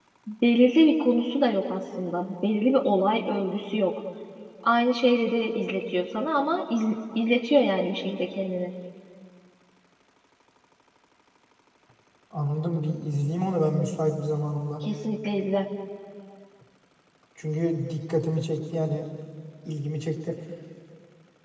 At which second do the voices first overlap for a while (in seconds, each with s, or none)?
none